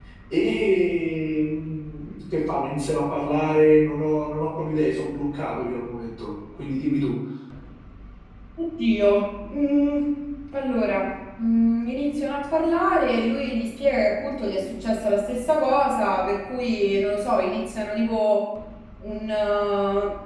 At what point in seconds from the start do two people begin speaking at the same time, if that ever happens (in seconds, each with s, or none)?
none